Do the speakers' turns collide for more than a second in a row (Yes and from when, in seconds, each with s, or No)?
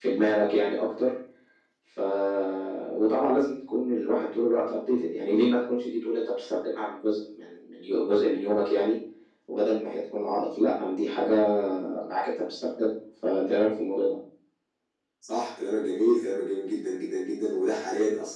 No